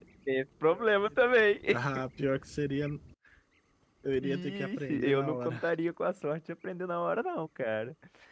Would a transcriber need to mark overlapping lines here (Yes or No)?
Yes